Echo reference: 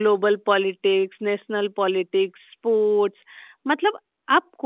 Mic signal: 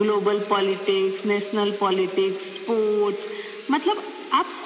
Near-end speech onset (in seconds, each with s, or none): none